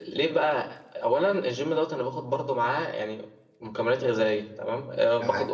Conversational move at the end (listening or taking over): listening